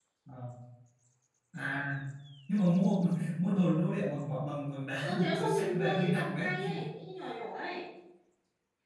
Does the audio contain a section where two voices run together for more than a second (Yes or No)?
Yes